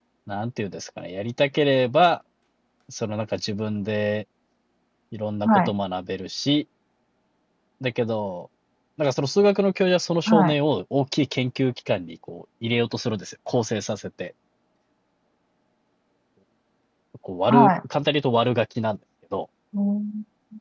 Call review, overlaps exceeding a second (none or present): none